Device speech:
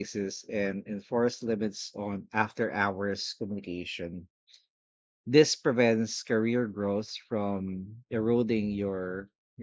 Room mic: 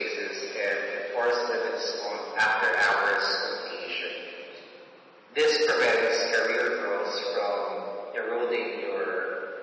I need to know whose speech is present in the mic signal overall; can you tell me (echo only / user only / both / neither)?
echo only